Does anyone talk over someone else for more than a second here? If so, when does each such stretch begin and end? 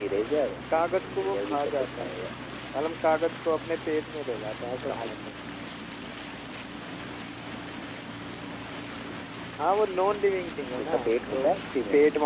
0.9-2.3

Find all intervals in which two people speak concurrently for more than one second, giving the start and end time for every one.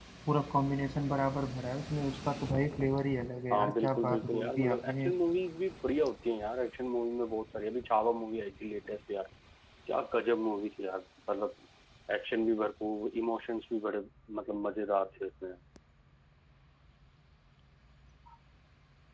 3.5-5.1

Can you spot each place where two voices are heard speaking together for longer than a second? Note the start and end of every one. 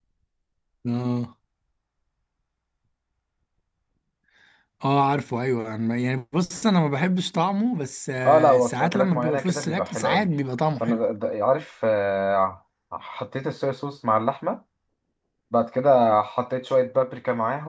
8.2-10.3

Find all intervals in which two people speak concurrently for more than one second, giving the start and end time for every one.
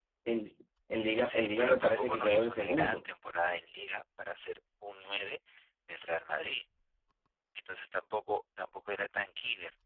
1.2-3.1

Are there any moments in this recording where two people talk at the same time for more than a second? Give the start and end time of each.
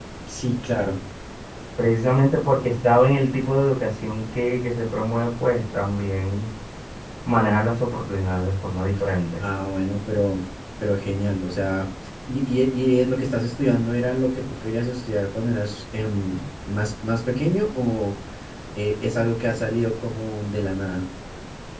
none

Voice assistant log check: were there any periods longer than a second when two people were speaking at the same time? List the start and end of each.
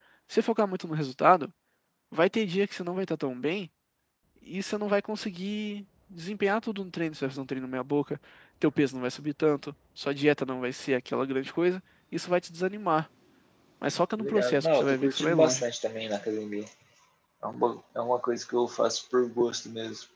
14.2-15.6

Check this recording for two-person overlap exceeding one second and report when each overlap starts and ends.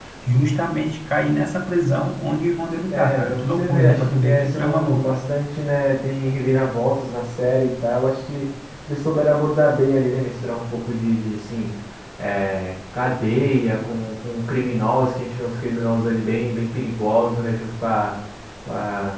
2.9-5.1

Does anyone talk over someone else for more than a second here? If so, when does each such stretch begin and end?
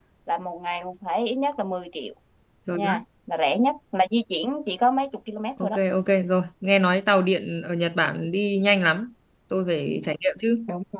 none

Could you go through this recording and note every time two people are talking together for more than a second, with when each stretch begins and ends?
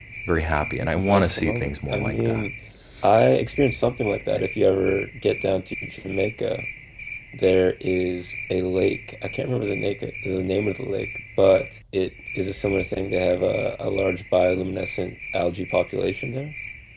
0.8-2.4

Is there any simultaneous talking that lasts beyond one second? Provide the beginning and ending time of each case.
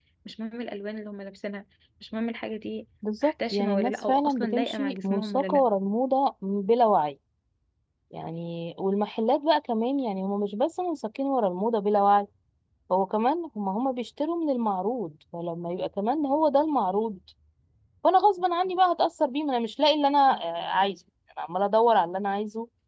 3.2-5.7

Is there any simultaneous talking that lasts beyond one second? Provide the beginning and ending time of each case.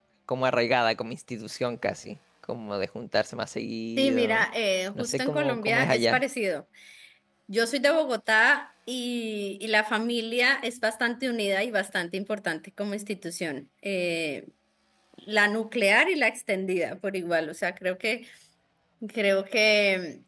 5.0-6.2

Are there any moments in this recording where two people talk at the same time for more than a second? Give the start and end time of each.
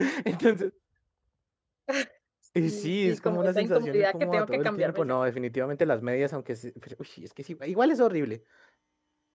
2.6-5.1

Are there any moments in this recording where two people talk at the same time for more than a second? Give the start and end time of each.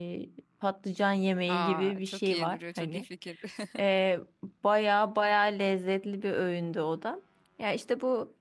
1.5-3.0

